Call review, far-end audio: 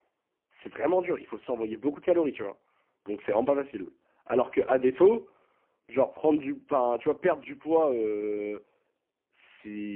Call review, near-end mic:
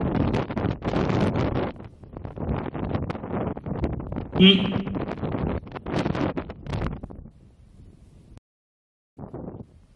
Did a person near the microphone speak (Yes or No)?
Yes